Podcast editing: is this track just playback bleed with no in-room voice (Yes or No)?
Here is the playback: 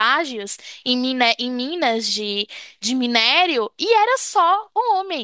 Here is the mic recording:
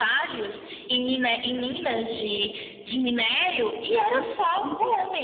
No